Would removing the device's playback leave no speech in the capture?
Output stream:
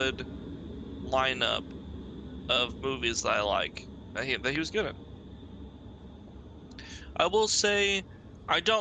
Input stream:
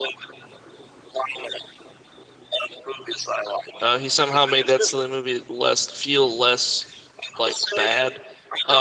No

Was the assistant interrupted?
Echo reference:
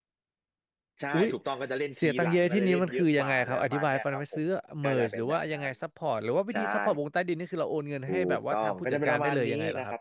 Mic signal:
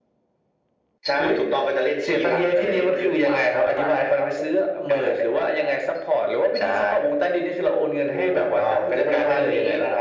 No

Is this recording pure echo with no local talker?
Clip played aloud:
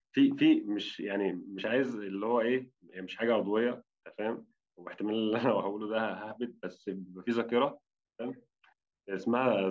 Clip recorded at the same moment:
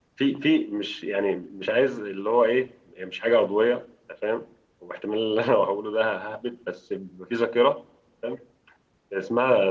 Yes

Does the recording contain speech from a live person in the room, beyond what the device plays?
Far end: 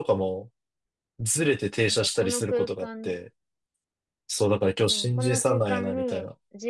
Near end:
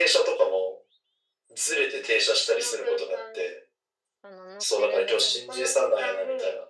Yes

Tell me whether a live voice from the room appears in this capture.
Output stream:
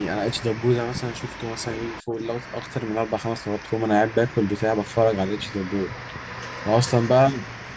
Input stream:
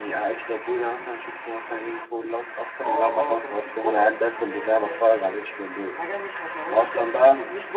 Yes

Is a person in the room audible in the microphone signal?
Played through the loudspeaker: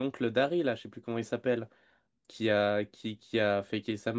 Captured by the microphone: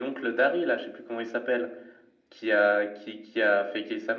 No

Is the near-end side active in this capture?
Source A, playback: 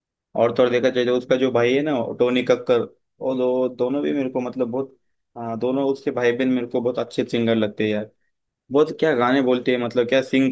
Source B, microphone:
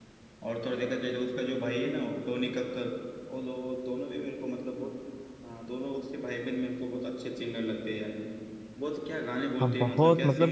Yes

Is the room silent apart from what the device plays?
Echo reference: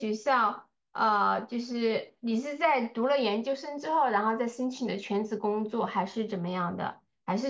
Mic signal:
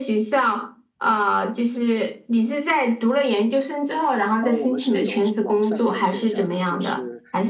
No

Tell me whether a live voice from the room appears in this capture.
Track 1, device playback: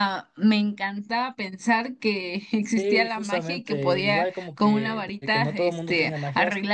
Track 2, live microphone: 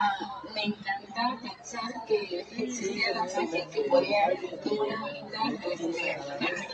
Yes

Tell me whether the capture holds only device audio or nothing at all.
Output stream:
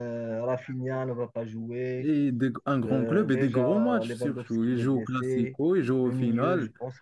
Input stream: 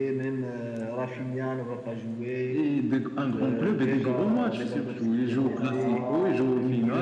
No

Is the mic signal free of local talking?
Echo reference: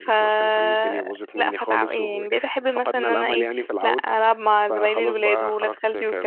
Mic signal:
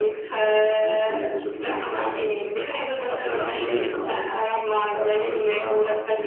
No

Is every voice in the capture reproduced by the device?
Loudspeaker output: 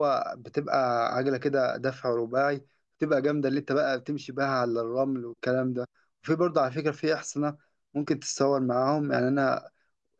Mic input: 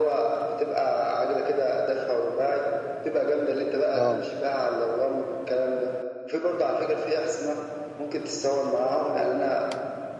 No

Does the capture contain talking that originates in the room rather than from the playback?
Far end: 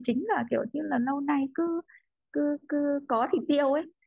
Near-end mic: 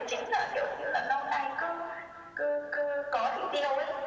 No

